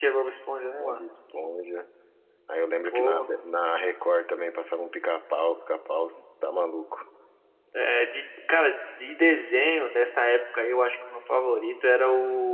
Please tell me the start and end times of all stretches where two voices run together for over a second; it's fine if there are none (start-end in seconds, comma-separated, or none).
none